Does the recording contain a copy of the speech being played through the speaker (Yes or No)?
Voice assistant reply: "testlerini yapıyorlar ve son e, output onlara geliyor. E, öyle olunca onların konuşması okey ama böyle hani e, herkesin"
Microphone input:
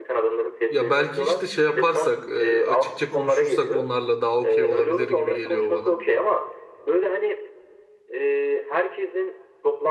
Yes